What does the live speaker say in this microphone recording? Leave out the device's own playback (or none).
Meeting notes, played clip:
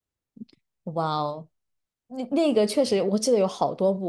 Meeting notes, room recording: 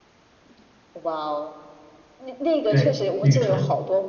对，吕纯，